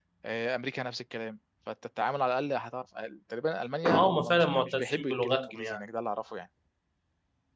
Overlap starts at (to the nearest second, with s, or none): 4 s